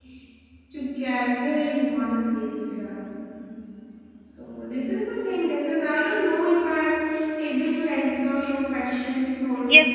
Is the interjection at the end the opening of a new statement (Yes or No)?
Yes